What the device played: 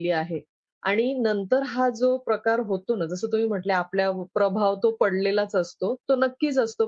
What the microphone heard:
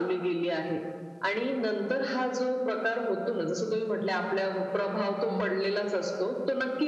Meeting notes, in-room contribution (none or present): present